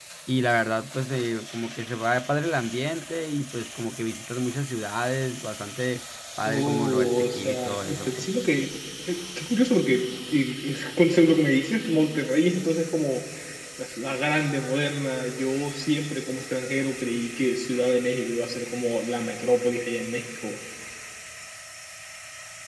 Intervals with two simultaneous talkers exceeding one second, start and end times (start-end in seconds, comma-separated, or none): 6.4-8.3